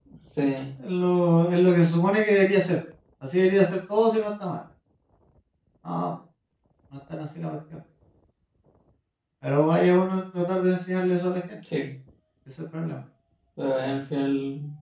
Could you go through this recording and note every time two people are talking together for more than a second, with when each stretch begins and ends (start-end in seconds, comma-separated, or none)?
none